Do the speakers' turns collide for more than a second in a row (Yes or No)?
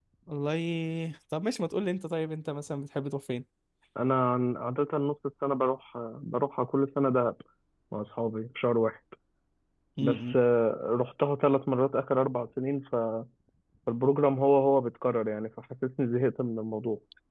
No